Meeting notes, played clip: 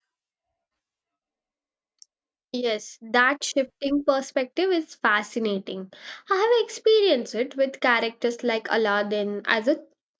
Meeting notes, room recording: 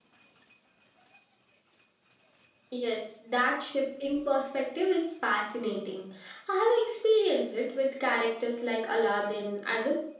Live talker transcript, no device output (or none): none